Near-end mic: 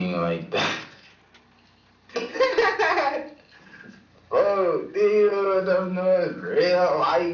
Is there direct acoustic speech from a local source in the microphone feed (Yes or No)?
No